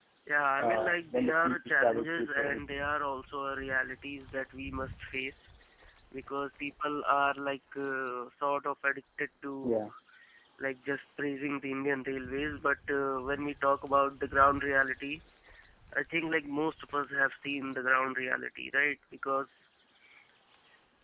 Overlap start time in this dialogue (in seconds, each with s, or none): 0.6 s